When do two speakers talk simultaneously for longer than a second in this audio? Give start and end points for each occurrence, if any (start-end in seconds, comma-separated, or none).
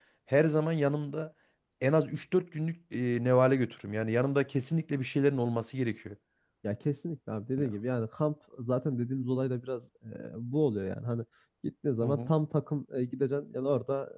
none